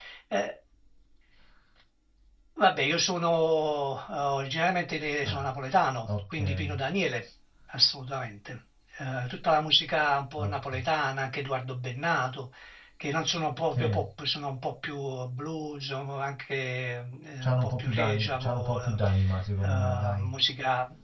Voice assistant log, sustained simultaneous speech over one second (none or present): present